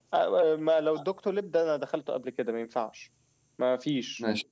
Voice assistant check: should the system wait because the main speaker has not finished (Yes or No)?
Yes